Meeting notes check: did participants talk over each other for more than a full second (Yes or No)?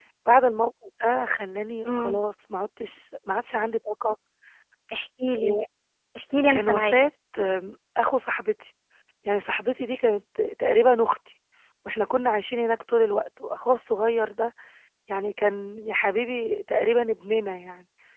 No